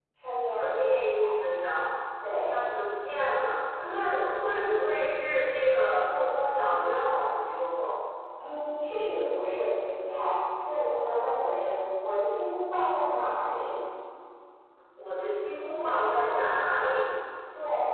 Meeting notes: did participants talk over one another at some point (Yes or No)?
Yes